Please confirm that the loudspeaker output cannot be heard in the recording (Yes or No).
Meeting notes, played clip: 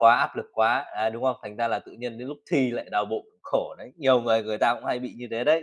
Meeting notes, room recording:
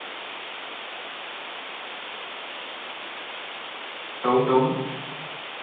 Yes